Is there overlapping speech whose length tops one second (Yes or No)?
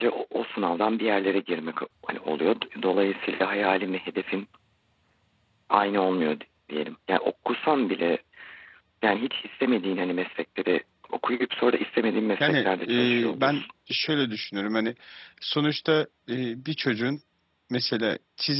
Yes